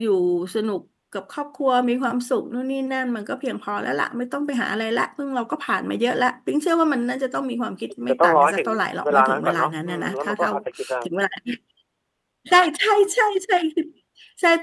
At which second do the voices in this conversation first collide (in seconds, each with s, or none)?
8.0 s